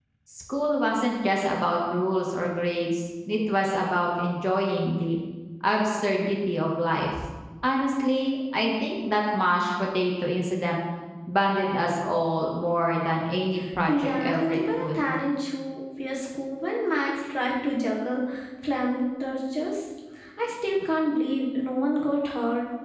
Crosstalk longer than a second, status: present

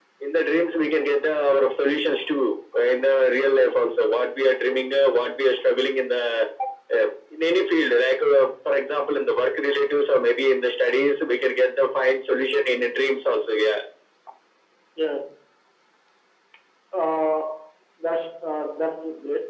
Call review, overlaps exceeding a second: none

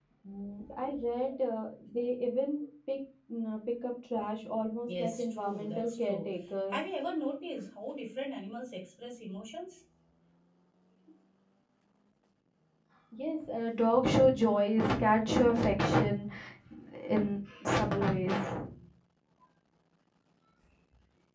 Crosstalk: present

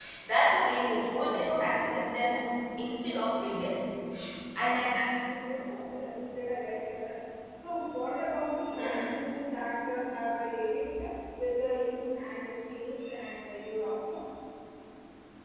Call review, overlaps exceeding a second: present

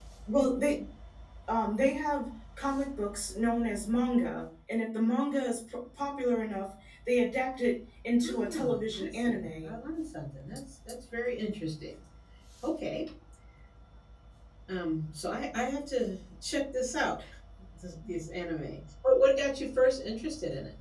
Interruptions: present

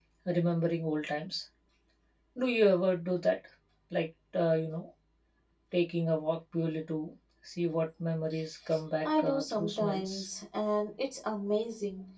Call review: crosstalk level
present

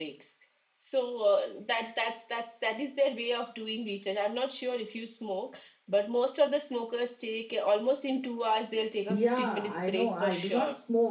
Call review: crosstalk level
present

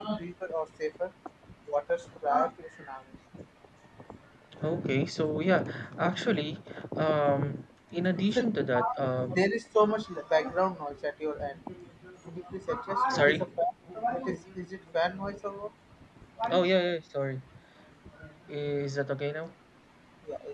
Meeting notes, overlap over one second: none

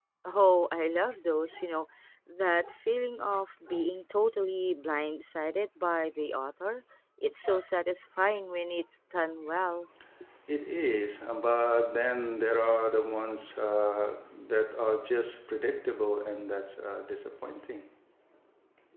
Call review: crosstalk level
none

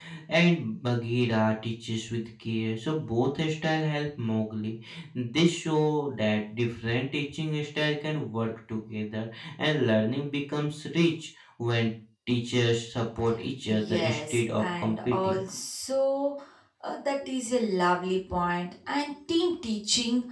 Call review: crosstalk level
present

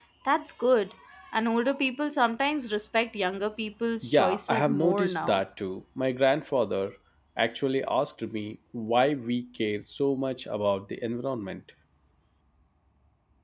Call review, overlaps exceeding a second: present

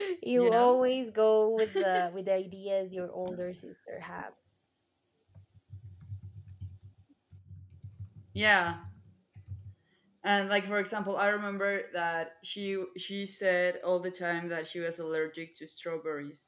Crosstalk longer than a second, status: none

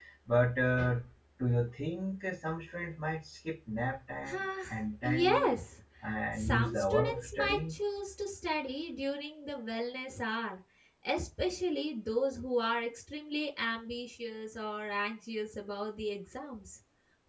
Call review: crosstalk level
present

